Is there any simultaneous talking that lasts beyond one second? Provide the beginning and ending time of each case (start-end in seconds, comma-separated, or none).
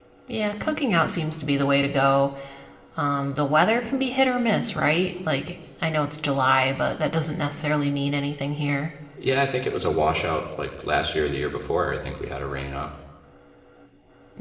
none